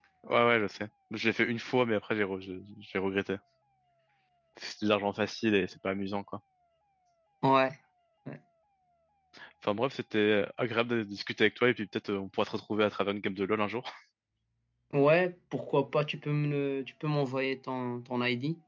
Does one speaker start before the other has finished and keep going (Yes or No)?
No